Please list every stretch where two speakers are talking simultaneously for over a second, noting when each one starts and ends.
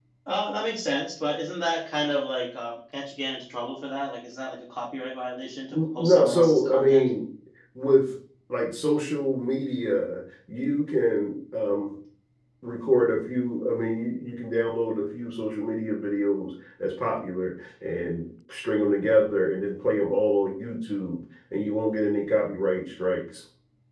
5.7-7.1

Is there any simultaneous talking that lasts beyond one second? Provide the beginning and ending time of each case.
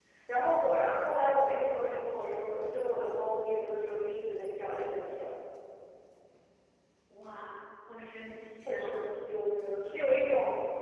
none

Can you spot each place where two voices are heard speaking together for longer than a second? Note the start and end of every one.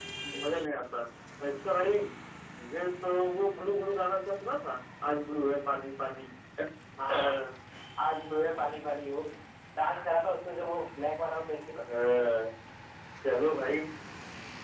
none

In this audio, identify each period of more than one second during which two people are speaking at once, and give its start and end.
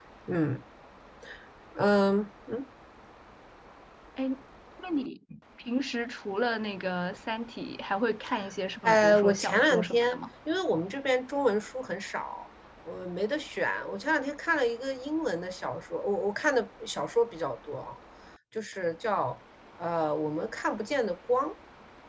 8.8-10.2

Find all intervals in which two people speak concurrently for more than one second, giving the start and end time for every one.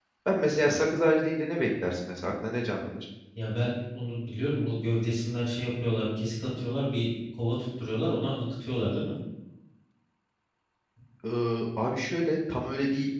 none

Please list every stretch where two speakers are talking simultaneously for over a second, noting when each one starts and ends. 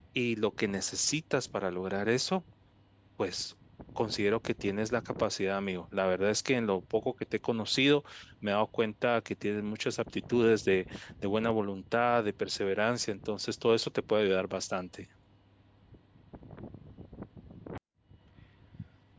none

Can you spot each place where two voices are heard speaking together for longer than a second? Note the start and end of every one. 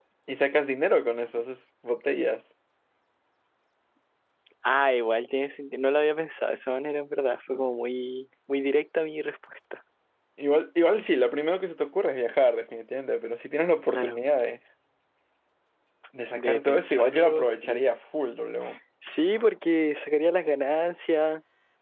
16.3-17.8

